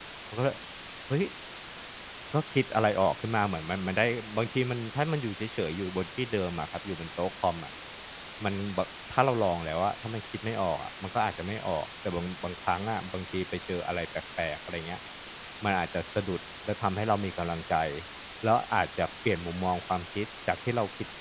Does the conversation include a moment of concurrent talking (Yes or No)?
No